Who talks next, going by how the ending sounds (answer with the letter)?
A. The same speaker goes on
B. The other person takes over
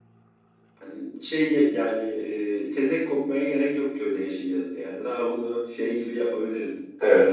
B